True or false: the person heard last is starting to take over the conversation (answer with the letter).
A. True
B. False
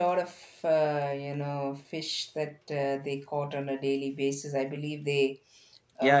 A